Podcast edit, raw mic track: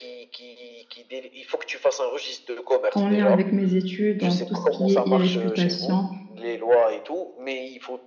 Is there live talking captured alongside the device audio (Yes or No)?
Yes